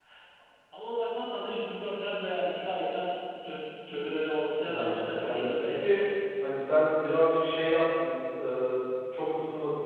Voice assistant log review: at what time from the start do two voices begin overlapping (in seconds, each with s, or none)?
4.6 s